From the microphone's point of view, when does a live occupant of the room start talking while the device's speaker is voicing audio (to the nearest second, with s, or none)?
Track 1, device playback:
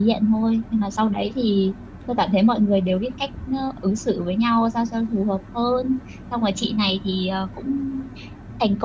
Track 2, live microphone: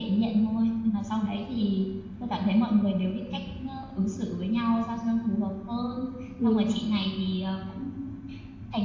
6 s